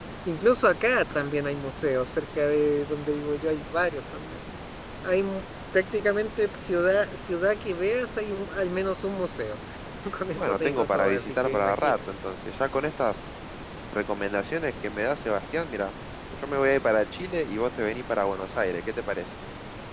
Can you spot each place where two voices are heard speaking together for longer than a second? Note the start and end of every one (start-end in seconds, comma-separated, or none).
10.4-12.0